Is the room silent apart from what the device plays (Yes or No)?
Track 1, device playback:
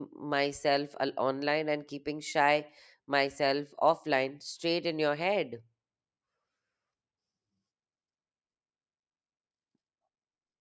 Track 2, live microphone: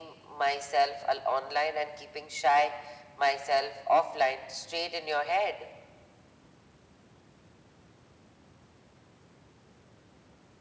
Yes